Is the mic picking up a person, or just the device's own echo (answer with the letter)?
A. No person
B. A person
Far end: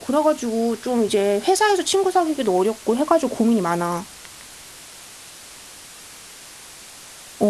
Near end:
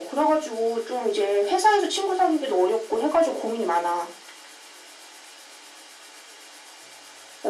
A